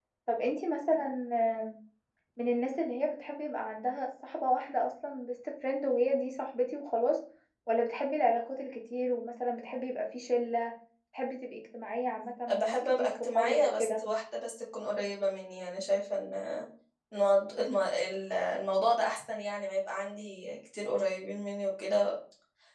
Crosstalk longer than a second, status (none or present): present